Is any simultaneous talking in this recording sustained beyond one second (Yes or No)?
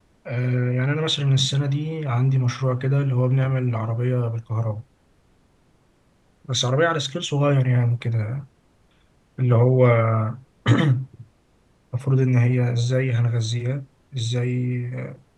No